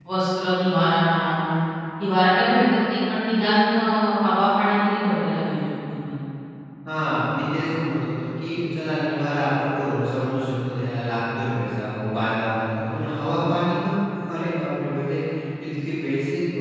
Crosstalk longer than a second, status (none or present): none